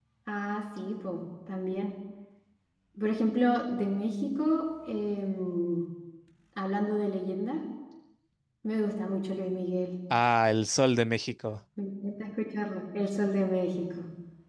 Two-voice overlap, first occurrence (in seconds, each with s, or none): none